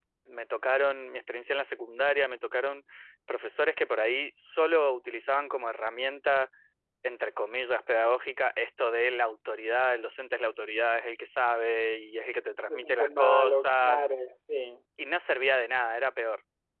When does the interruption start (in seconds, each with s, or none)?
12.7 s